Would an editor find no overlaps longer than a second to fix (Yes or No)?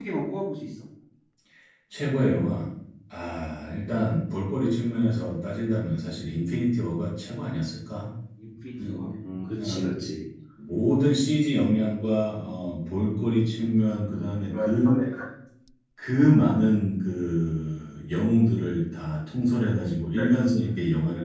Yes